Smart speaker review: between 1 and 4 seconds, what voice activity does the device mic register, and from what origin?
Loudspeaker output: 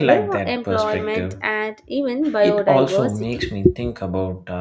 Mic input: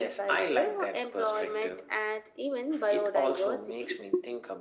echo only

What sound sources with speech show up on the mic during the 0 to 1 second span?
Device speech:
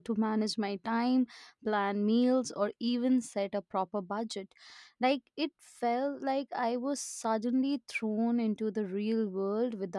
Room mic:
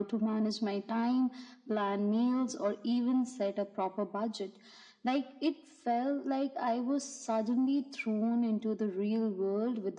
echo only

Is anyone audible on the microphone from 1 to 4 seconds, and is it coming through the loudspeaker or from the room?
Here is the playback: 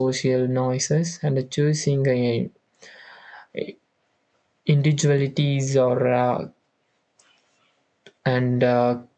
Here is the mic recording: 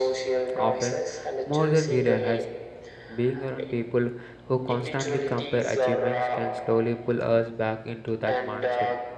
both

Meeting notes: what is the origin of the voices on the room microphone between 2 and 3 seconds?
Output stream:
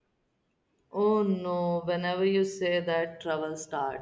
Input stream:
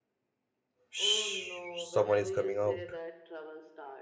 both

